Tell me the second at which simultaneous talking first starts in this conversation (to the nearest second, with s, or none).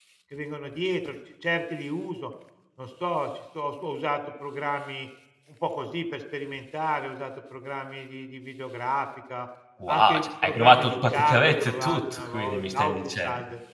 10 s